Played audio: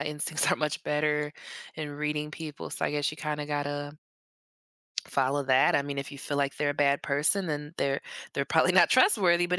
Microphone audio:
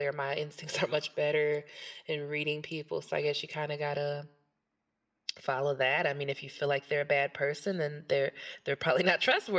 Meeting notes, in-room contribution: none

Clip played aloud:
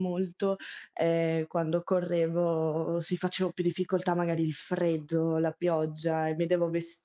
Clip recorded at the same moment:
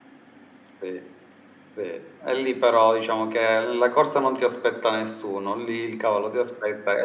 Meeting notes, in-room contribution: present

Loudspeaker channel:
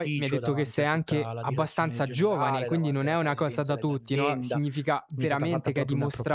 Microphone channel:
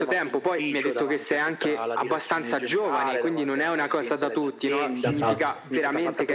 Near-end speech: present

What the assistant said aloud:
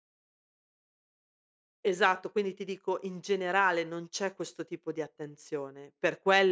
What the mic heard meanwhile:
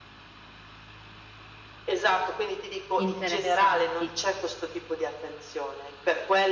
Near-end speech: present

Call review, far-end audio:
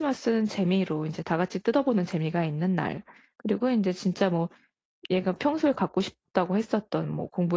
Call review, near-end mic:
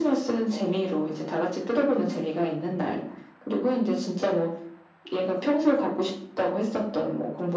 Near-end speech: none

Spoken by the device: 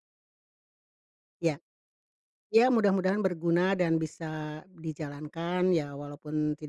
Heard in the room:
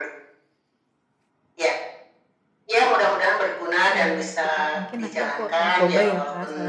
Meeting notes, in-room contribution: present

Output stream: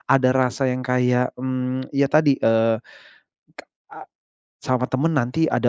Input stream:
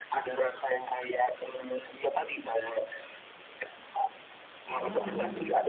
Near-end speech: present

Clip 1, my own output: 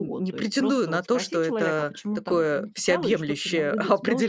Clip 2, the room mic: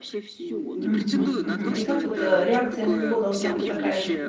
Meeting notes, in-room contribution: present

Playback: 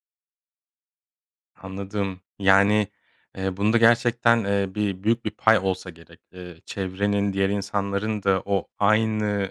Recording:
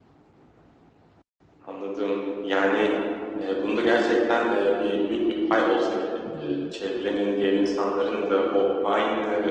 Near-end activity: present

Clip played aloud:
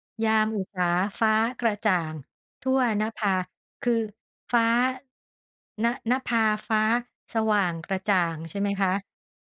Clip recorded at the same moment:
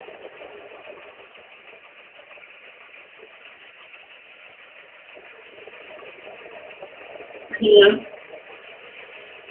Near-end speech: present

